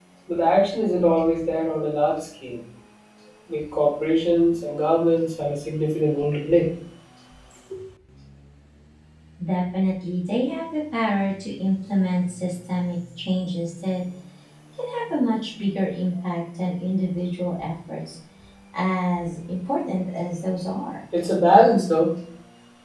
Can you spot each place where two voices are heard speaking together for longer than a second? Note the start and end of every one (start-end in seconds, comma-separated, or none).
none